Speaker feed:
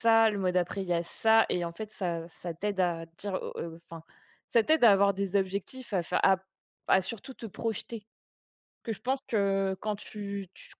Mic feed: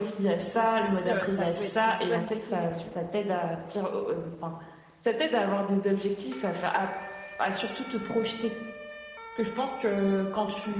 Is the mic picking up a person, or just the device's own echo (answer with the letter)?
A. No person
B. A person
B